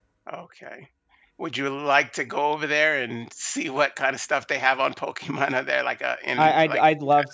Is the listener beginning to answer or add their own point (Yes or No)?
Yes